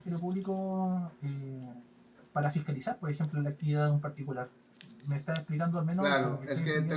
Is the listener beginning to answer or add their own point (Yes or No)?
Yes